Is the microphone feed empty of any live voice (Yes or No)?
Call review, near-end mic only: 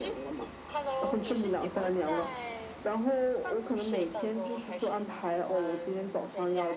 No